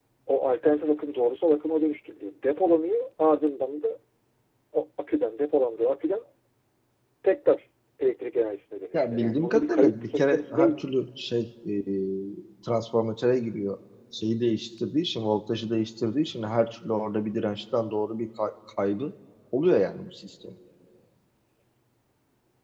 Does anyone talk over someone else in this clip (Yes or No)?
Yes